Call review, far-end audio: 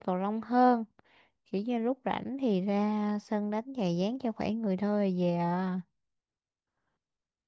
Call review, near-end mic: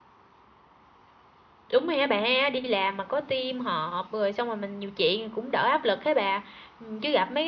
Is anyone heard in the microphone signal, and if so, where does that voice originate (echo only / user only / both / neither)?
user only